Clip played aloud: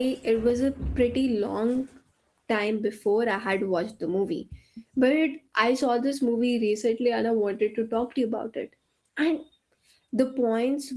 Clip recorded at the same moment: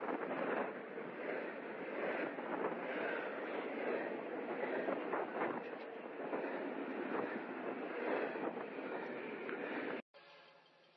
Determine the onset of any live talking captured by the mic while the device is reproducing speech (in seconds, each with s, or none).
none